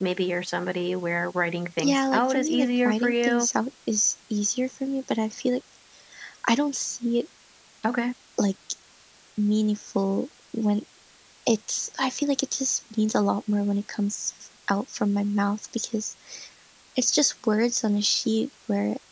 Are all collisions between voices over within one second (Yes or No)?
No